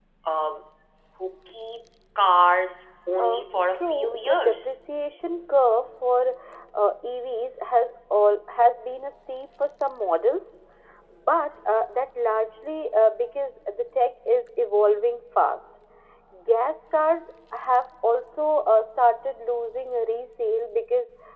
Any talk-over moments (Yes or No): Yes